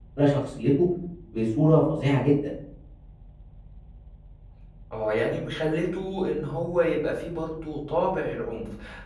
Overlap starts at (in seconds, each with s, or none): none